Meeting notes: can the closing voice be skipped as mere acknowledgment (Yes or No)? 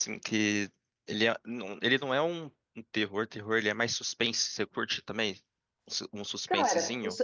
No